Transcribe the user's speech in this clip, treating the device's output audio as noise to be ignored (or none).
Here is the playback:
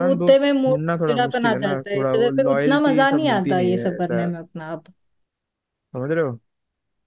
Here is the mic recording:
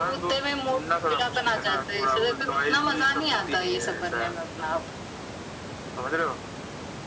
none